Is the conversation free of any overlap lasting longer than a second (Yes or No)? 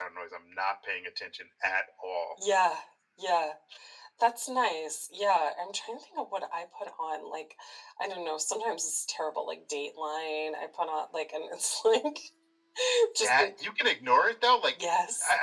Yes